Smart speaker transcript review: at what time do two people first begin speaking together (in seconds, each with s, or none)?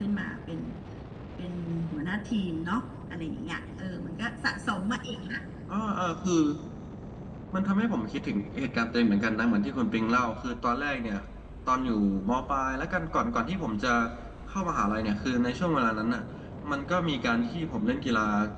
none